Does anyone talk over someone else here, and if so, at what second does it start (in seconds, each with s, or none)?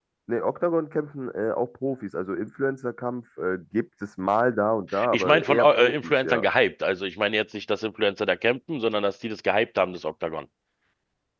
4.9 s